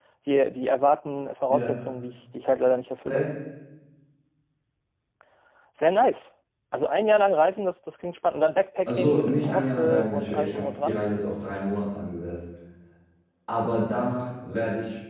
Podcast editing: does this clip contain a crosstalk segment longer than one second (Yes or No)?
Yes